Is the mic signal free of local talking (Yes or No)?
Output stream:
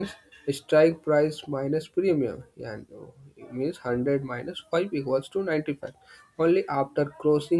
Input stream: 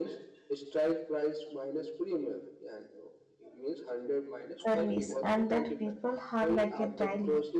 No